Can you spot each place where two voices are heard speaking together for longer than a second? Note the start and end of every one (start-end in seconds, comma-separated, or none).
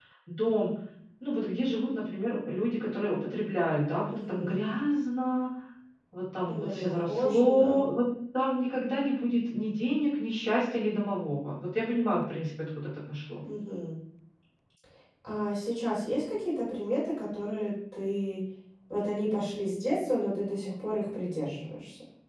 6.5-7.7